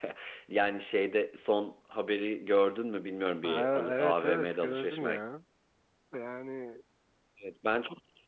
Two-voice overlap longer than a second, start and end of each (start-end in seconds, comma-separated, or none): 3.4-5.2